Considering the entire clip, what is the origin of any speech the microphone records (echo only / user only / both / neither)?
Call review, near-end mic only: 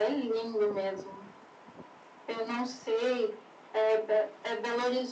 echo only